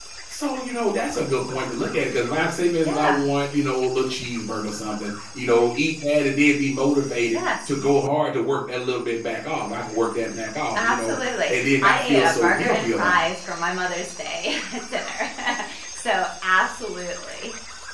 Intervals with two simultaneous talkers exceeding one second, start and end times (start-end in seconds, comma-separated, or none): 10.7-13.3